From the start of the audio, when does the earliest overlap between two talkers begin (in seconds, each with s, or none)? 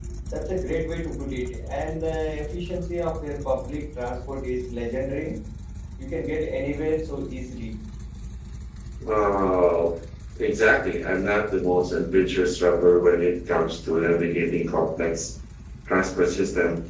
none